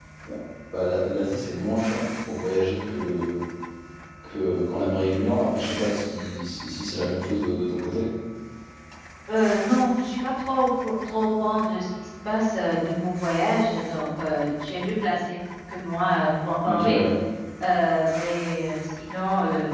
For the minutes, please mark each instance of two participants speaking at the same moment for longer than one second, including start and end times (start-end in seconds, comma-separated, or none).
none